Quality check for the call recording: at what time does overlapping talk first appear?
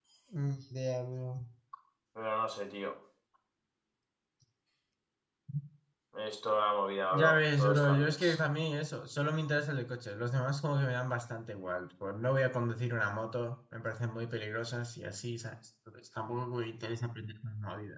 7.1 s

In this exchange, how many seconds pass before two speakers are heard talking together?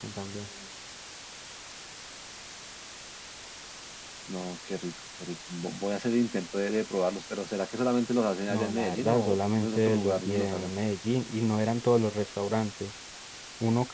8.5 s

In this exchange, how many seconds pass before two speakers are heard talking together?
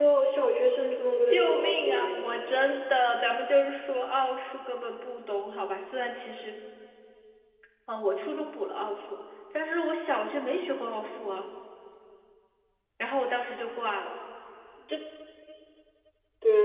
1.2 s

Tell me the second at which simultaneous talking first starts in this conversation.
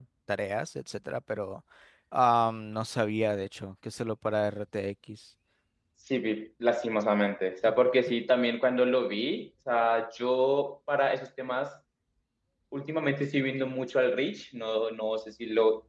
none

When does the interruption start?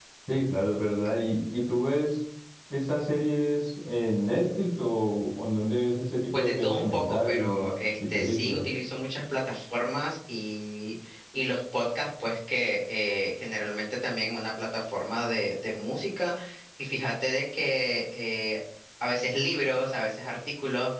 6.3 s

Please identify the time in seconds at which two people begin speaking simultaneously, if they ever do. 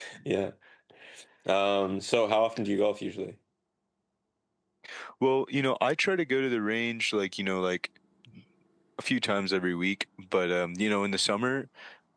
none

